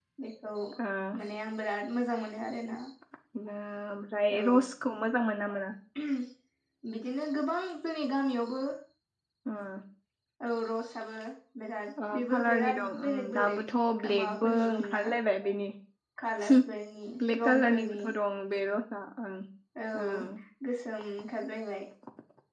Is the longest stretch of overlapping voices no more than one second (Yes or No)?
No